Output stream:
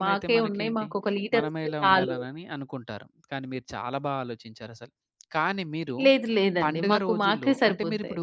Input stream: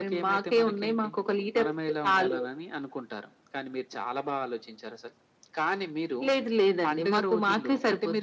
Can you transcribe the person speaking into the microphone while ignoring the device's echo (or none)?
none